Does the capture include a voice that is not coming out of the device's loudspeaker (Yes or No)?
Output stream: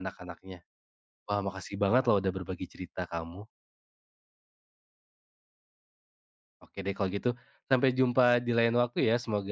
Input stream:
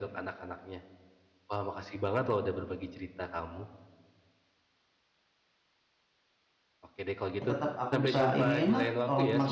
Yes